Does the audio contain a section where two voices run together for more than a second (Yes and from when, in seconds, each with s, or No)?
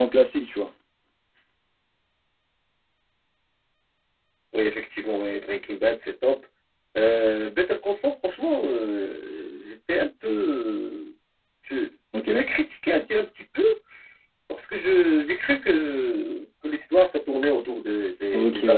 No